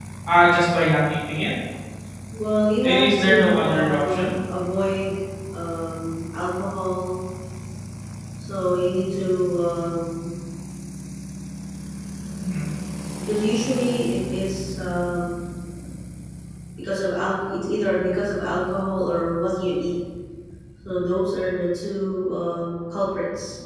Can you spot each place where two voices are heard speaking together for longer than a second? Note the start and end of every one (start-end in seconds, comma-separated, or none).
2.8-4.3